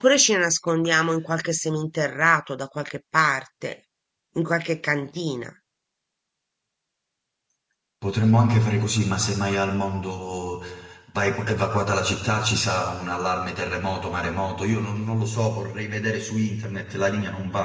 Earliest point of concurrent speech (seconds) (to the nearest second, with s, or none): none